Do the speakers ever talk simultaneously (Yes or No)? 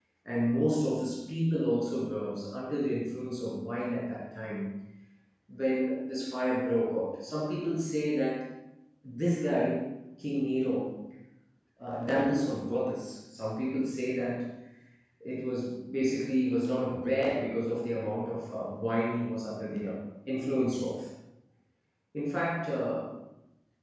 No